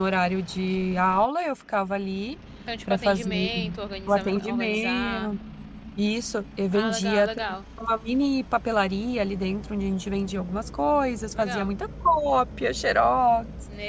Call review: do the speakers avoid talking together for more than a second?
No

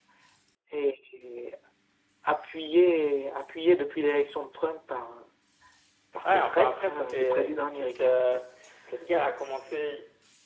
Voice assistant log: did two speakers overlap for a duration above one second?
Yes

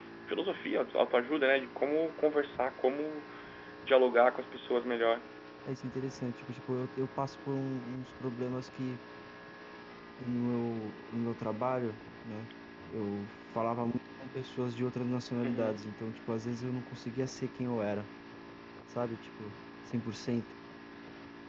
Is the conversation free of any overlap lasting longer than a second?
Yes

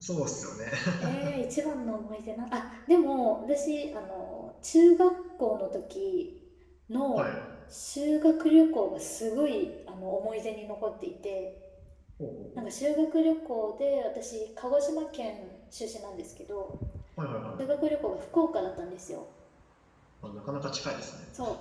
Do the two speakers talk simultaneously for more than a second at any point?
No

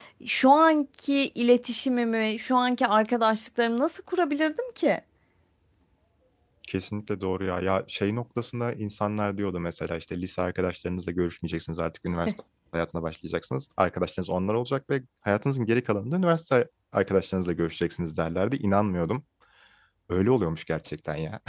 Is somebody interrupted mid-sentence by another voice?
No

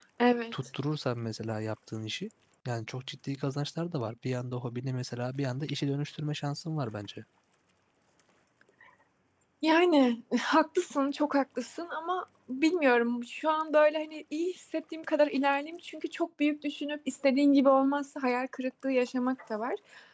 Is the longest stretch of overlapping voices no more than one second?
Yes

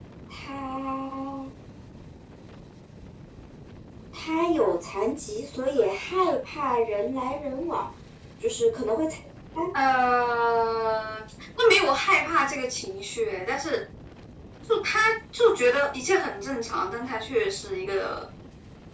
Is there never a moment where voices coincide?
Yes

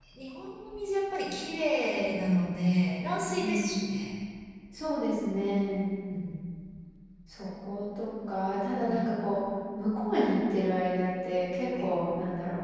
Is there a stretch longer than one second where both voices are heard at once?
No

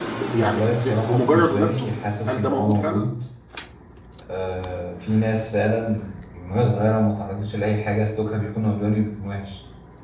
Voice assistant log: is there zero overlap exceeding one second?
No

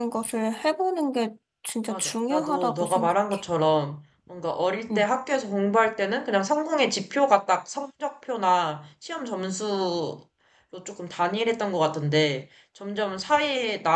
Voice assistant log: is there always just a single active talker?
No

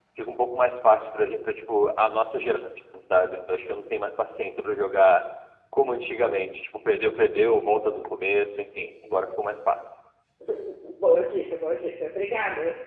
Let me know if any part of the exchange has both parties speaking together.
No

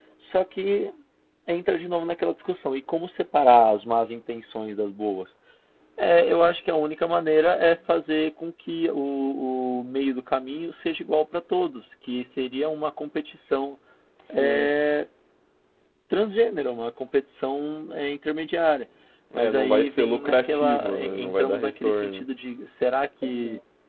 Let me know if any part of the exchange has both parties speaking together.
Yes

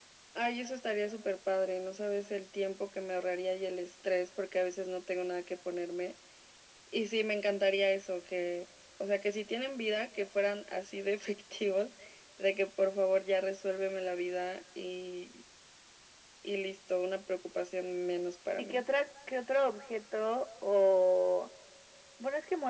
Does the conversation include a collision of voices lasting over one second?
No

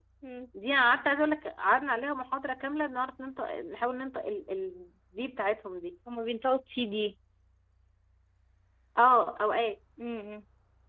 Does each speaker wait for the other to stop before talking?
Yes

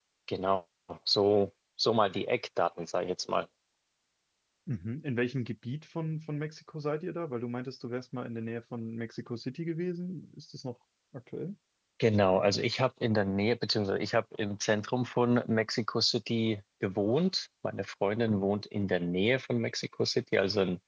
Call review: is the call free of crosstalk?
Yes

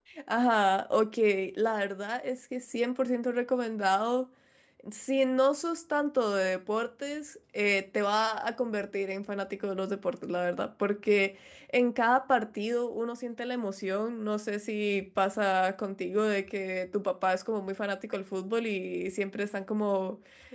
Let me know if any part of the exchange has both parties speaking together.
No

